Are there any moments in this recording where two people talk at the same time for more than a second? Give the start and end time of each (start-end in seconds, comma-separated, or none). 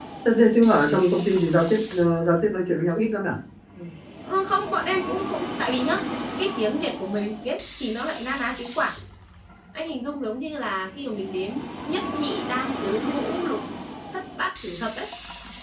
none